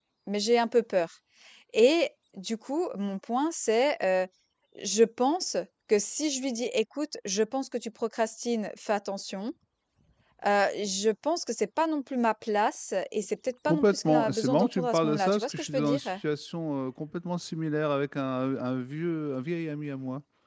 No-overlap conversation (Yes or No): No